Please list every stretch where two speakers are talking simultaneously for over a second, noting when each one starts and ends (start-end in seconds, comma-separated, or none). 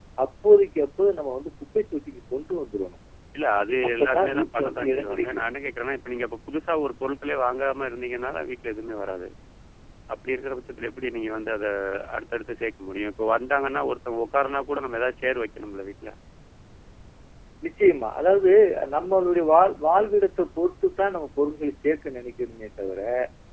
3.9-5.5